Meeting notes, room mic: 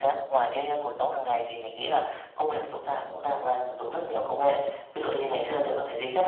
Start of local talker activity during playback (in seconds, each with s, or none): none